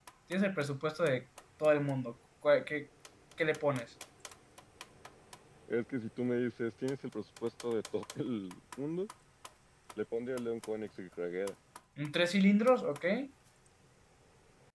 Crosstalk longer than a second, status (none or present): none